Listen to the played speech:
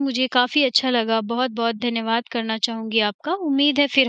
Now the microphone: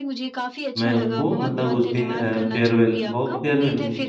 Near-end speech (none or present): present